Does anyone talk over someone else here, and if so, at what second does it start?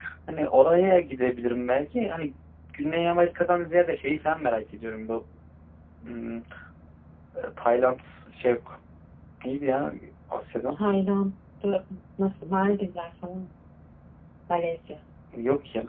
none

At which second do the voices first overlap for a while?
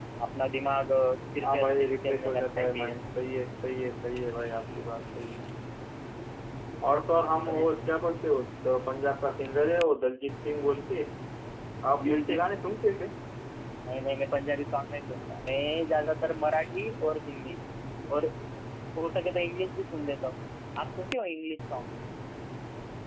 1.4 s

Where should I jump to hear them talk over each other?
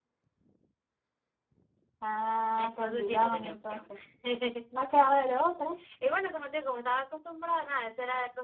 2.6 s

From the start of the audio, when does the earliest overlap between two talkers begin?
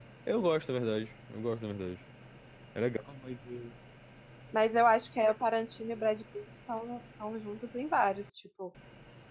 none

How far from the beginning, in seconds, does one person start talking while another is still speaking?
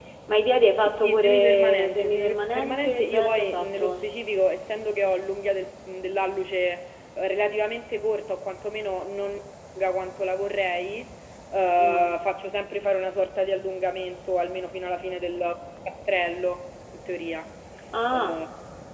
0.8 s

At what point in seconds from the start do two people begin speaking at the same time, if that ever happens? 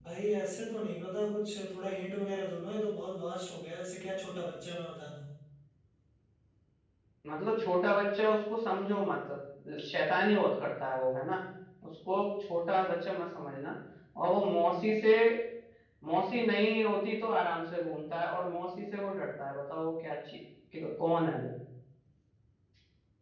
none

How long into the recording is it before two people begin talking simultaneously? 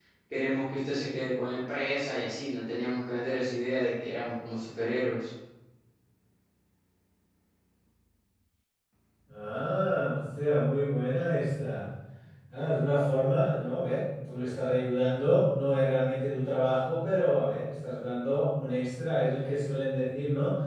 none

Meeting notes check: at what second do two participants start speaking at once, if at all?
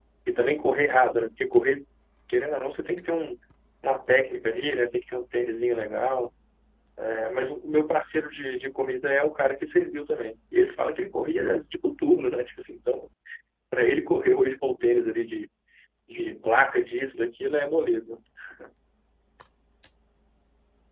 none

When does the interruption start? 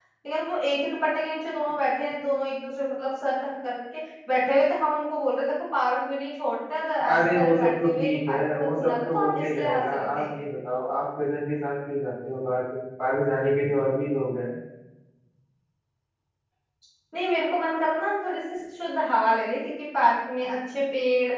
7.0 s

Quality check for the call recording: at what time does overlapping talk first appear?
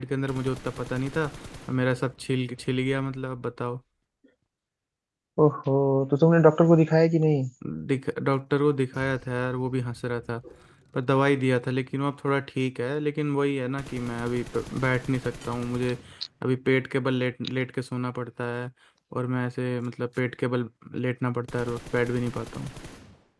none

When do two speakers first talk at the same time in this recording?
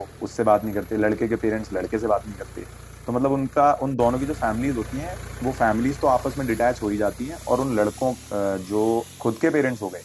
none

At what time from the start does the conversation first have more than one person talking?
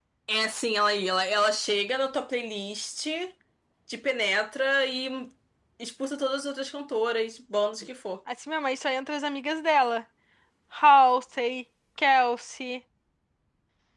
none

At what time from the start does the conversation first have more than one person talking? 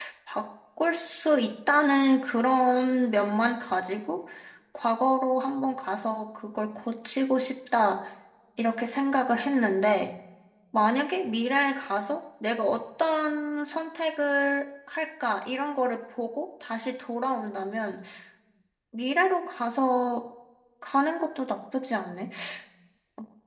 none

